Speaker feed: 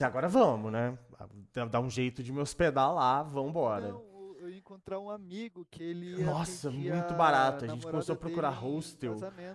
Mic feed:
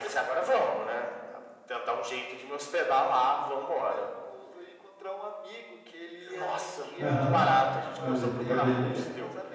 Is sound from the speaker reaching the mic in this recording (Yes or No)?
Yes